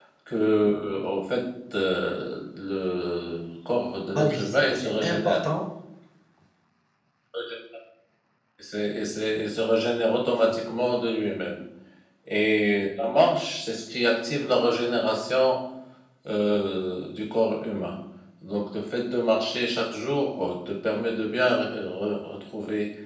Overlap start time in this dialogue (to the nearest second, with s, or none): 4 s